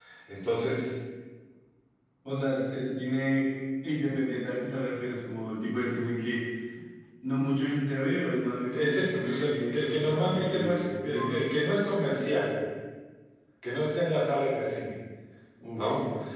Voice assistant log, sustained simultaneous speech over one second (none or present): present